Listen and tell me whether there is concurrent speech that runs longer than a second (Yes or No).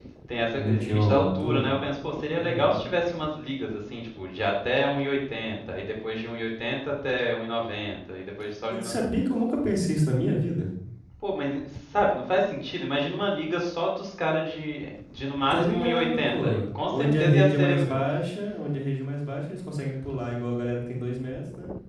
Yes